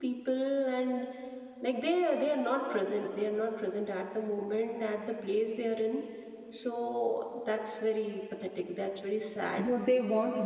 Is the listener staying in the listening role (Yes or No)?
No